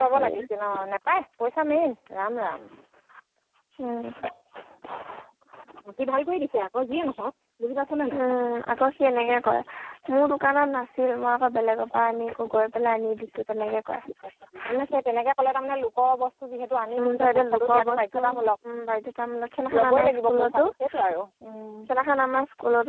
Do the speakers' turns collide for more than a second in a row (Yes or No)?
Yes